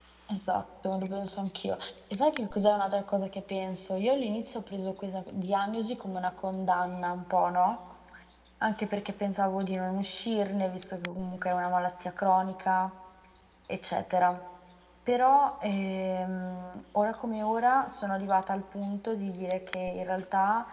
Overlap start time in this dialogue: none

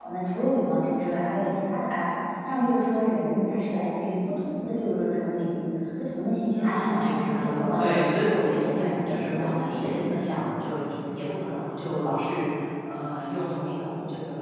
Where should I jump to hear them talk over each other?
6.5 s

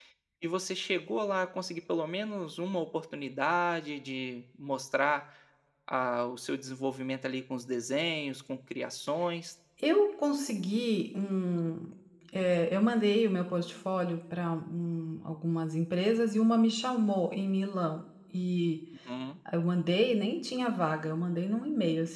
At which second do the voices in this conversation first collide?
none

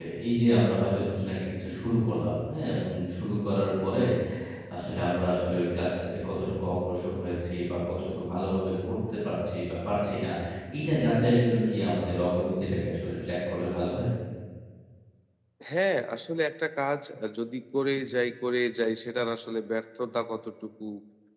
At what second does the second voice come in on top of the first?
none

